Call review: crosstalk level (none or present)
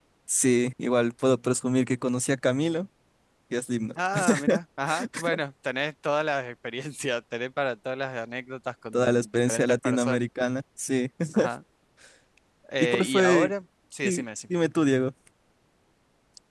present